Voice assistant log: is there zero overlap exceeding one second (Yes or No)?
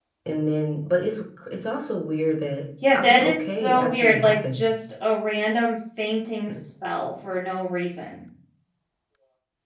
No